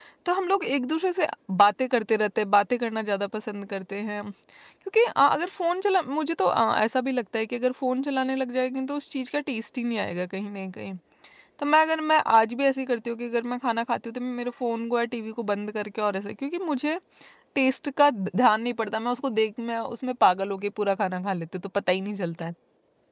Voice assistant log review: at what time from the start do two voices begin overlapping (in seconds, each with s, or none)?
none